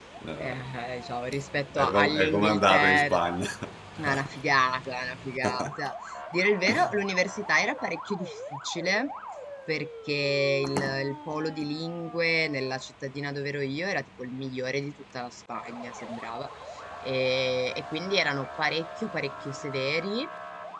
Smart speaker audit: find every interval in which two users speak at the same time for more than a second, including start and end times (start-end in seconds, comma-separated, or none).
1.8-3.1